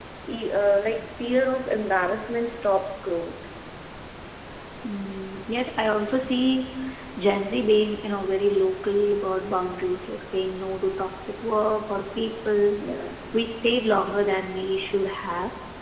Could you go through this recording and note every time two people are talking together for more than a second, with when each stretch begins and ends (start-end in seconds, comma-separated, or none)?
none